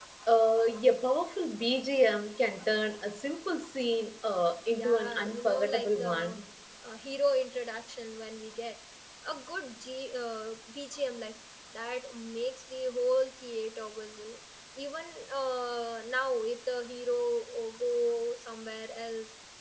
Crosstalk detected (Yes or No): Yes